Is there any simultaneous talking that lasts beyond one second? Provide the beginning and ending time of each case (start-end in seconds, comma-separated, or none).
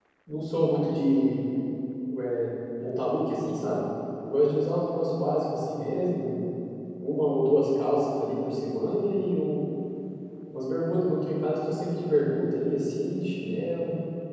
none